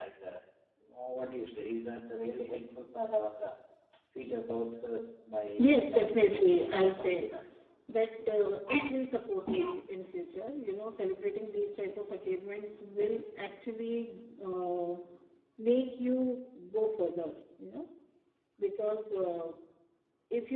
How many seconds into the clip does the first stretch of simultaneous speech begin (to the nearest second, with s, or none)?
6 s